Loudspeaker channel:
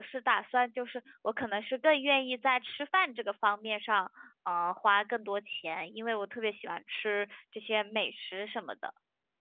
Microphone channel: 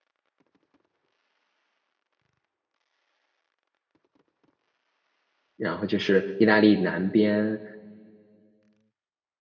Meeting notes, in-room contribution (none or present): present